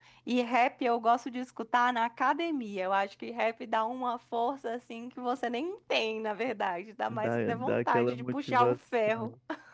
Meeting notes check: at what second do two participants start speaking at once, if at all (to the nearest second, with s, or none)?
7 s